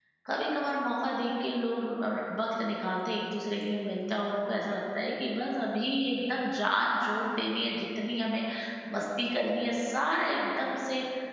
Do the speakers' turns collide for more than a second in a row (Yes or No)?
No